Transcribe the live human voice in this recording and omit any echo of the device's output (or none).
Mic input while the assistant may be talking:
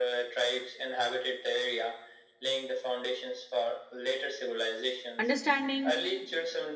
Understanding